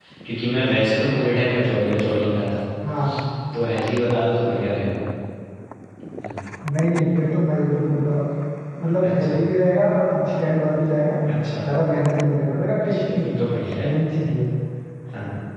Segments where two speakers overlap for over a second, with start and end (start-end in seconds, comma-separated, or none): none